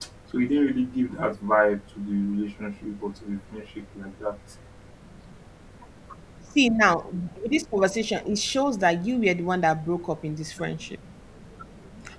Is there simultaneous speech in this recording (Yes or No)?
No